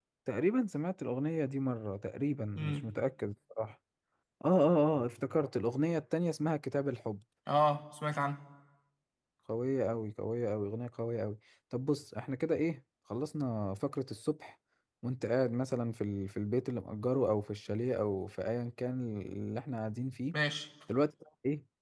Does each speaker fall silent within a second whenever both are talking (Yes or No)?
Yes